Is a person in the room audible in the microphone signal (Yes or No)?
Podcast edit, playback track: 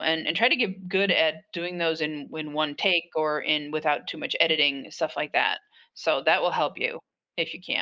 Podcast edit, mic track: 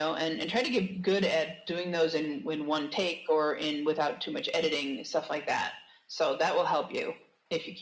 No